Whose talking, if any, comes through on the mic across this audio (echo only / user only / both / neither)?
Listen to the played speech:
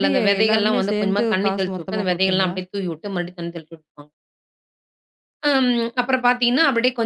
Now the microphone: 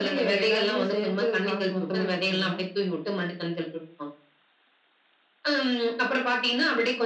echo only